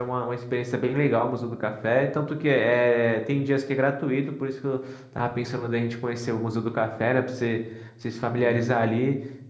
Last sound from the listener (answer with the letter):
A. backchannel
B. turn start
A